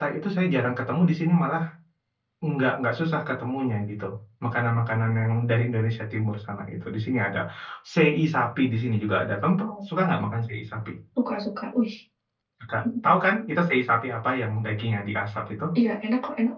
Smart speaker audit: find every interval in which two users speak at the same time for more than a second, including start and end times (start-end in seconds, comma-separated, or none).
none